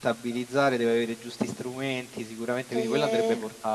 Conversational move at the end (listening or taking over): taking over